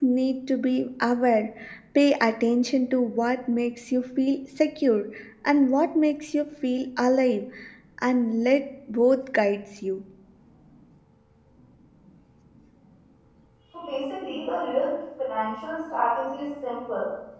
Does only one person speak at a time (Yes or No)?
Yes